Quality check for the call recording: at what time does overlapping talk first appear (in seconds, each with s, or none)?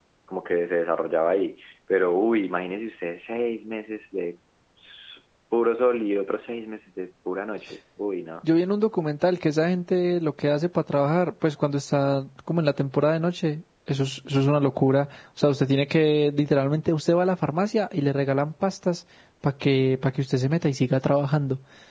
none